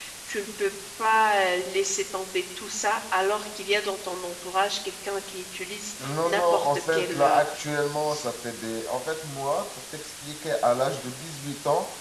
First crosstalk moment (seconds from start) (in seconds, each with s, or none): 6.0 s